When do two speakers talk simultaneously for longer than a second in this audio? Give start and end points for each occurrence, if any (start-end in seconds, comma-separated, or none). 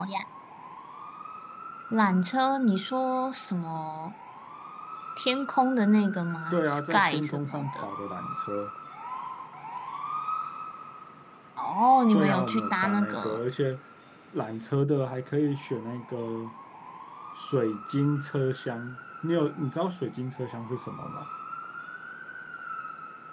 6.5-7.9, 12.1-13.4